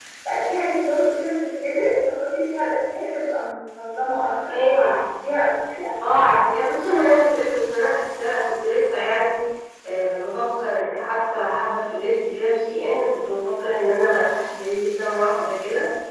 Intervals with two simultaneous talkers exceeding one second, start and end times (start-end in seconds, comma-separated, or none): none